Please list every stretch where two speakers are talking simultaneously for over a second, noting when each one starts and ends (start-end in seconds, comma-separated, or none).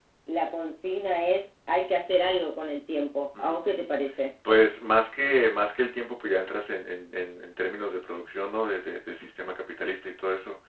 none